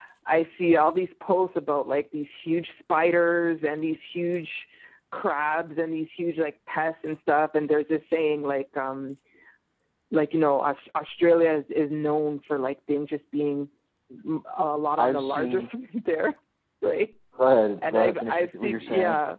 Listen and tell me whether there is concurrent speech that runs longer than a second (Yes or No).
Yes